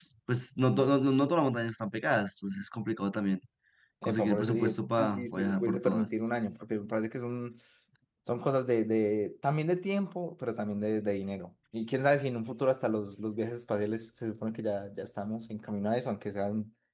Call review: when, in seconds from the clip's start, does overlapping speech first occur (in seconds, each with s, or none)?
4.0 s